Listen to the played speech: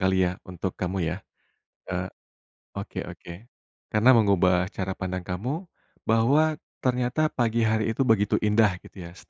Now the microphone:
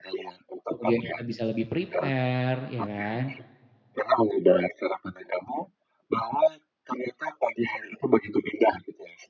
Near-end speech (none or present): present